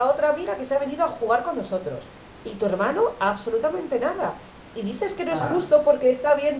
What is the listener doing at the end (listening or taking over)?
listening